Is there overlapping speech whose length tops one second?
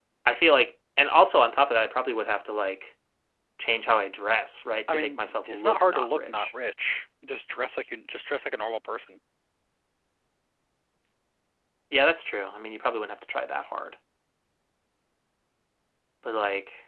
Yes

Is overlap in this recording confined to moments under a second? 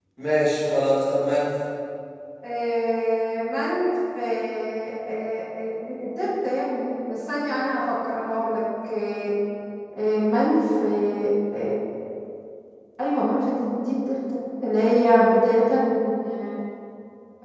Yes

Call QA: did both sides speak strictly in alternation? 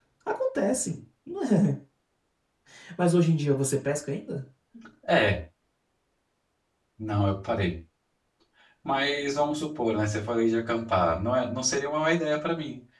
Yes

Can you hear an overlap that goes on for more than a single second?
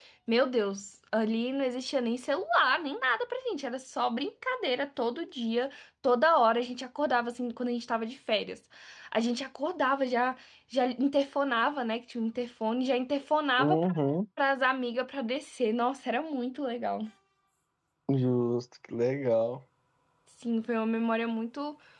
No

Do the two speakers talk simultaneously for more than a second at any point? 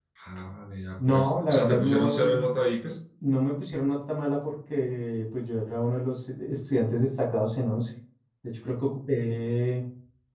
Yes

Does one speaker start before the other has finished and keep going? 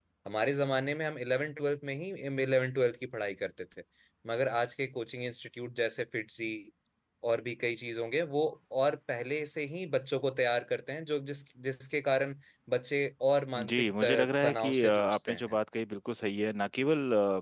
Yes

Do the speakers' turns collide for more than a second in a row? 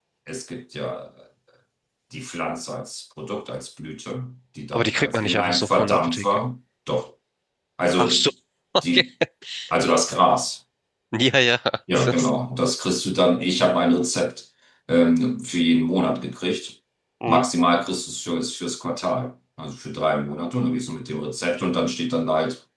Yes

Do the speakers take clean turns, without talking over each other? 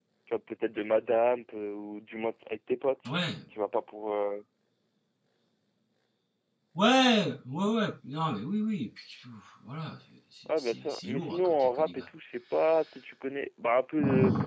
No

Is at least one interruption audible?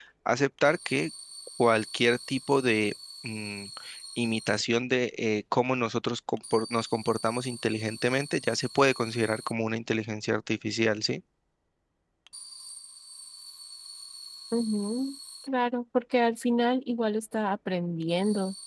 No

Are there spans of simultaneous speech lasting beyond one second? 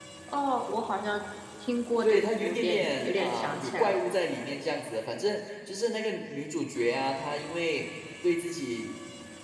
Yes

